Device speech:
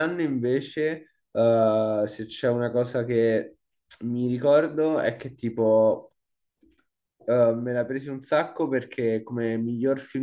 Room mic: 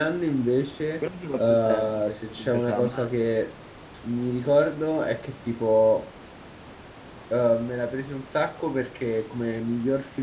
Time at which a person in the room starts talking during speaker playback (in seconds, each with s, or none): 1.0 s